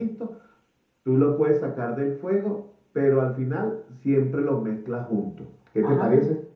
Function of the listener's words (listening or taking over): taking over